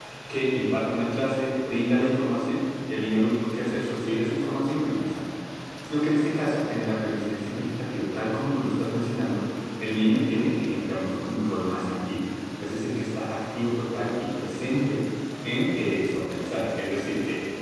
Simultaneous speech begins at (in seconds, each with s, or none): none